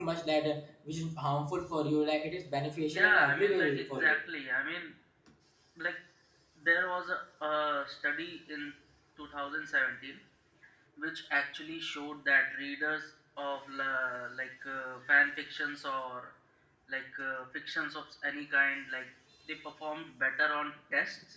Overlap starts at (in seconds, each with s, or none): 2.9 s